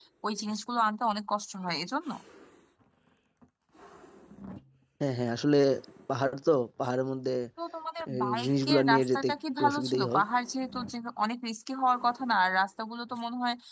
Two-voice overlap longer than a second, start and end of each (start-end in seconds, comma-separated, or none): 8.1-10.2